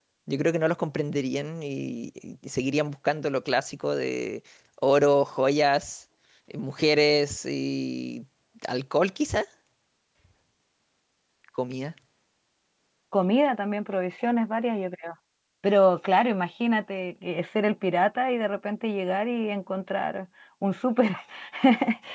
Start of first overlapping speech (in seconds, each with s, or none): none